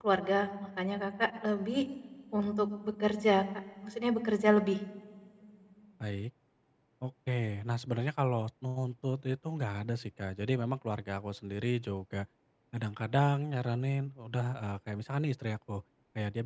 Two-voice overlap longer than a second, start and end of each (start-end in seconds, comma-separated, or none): none